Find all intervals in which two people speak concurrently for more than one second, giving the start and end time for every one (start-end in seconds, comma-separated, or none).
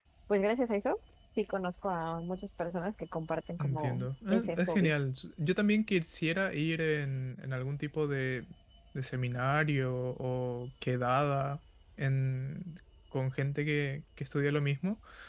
3.6-4.9